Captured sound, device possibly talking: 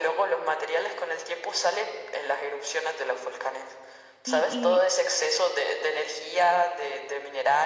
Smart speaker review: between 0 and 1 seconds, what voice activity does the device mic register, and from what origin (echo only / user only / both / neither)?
echo only